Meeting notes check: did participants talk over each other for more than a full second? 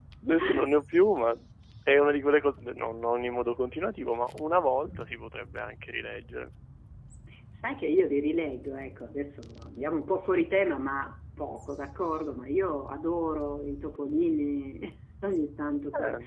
No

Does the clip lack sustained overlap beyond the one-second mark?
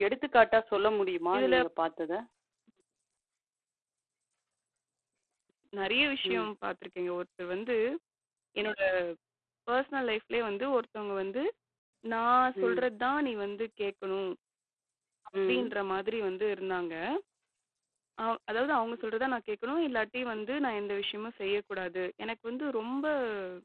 Yes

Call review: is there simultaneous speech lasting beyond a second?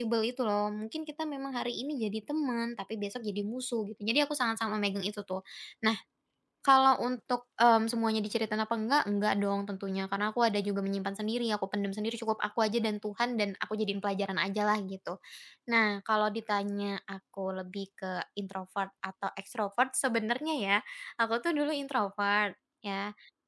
No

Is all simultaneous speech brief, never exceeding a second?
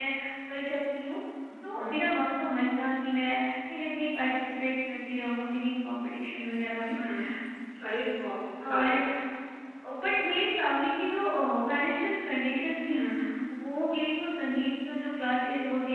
Yes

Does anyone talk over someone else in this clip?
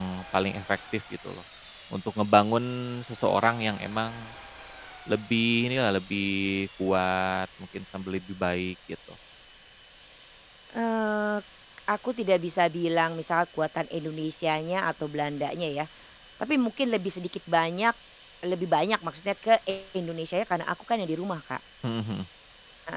No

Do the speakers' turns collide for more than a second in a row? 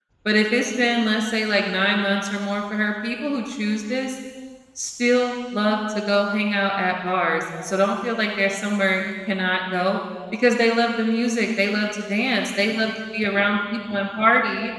No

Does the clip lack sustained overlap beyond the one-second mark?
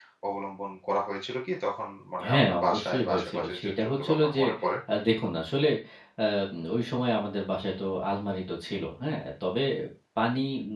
No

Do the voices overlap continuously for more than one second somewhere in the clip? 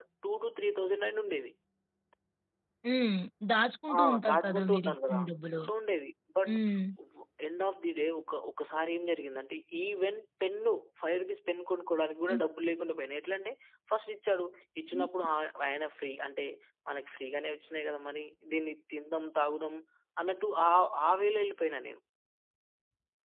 Yes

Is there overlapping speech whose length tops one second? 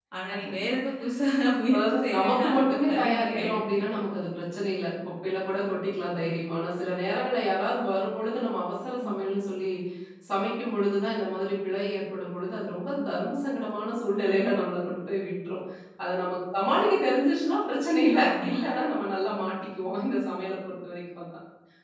Yes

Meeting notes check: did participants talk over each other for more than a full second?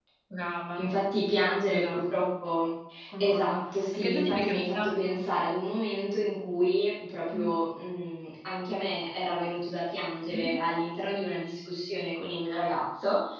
Yes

